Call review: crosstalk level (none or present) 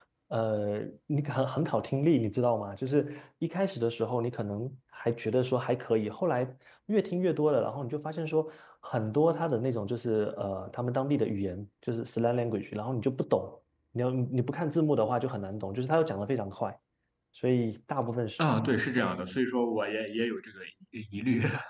none